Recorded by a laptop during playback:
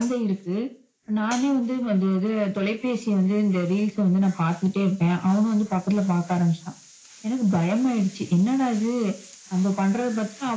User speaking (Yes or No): No